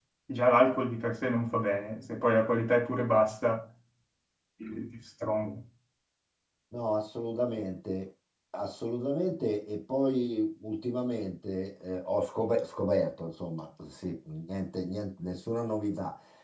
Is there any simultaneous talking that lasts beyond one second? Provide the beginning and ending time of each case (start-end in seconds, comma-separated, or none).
none